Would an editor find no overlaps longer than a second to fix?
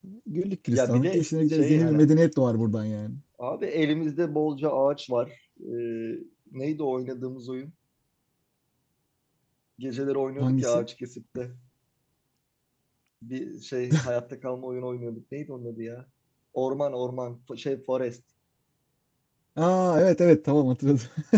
No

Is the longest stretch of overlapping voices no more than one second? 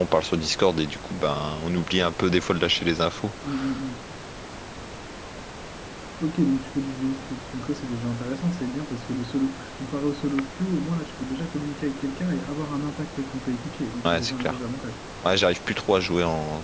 Yes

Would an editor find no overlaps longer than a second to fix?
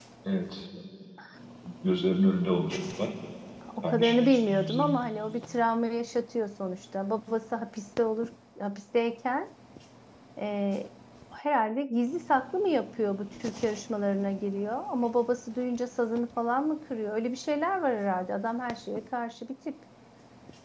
No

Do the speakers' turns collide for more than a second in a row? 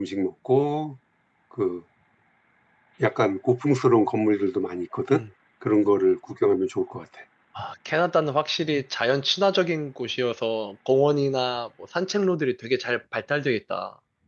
No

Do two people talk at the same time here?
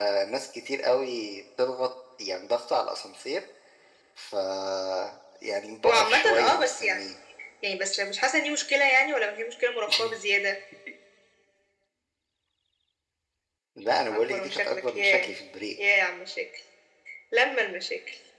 Yes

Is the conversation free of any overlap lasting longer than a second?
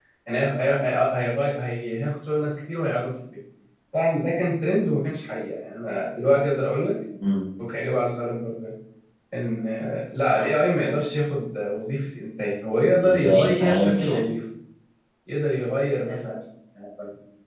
No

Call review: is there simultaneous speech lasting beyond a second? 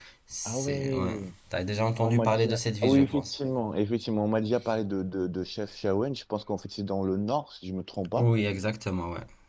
Yes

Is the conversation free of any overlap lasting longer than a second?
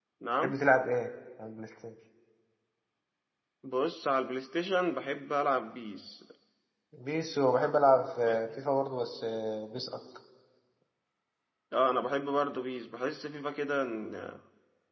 Yes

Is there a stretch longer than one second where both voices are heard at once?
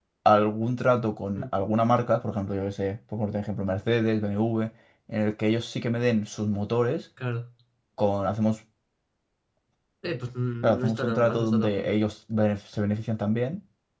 Yes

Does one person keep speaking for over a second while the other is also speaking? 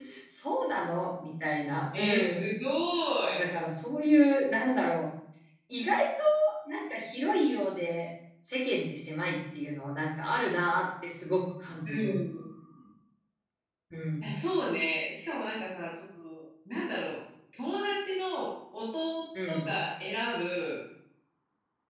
No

